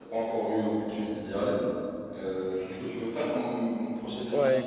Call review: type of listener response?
taking over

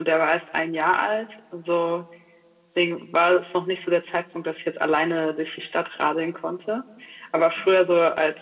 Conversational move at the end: listening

